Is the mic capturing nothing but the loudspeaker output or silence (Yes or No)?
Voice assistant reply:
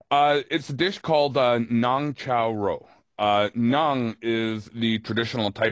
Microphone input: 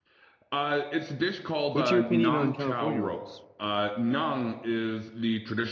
No